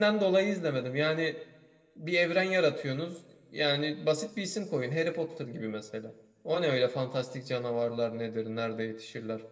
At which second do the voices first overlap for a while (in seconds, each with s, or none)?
none